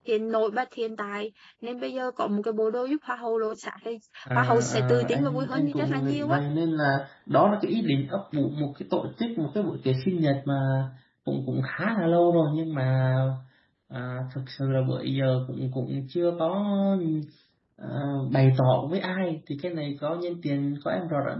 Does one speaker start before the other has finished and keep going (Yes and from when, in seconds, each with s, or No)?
Yes, from 4.3 s